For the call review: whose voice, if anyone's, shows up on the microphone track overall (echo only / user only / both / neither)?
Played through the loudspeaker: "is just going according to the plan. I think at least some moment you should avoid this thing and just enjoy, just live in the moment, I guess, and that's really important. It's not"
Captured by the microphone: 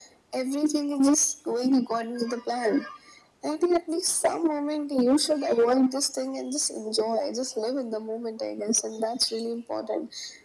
echo only